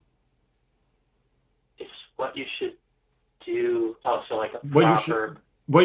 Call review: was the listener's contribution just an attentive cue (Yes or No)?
No